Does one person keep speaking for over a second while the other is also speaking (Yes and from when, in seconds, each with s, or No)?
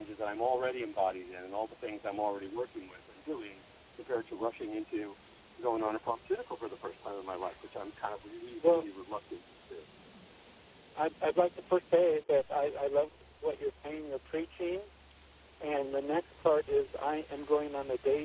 No